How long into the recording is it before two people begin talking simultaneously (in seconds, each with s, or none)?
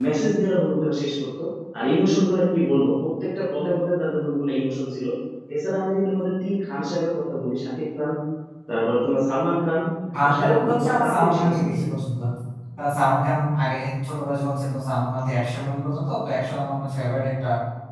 10.2 s